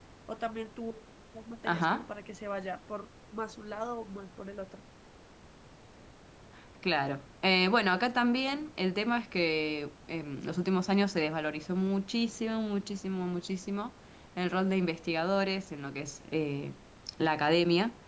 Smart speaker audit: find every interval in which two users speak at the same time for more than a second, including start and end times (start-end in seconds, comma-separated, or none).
none